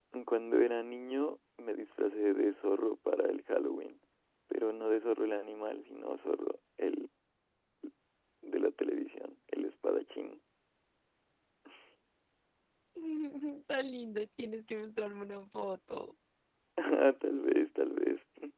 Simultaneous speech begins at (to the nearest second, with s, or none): none